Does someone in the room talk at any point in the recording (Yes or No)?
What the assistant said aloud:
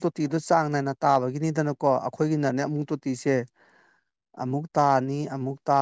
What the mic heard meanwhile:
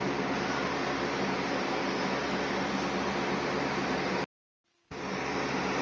No